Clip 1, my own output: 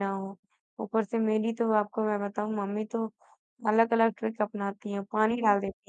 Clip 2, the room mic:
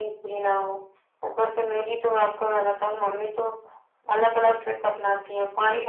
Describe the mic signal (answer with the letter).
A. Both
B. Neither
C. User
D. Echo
D